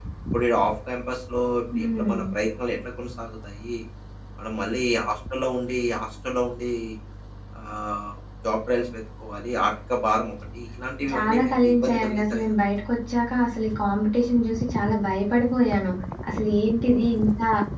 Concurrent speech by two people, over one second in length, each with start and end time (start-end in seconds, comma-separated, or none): 11.1-12.4